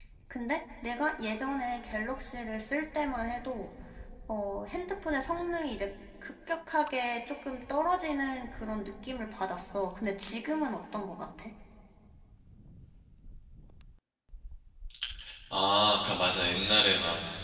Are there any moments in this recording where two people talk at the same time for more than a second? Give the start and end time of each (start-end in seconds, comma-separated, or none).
none